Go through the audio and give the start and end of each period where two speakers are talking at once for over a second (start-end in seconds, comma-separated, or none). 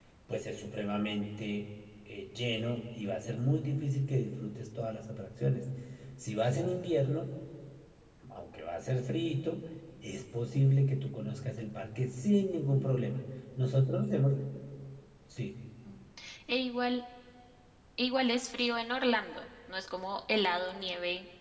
none